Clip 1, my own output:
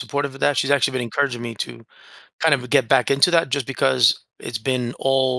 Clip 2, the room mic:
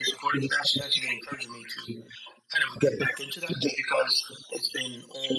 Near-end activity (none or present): none